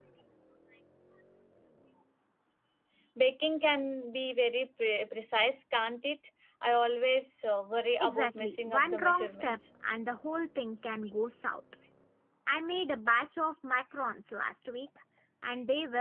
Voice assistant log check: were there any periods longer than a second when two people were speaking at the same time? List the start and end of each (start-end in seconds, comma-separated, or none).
8.0-9.6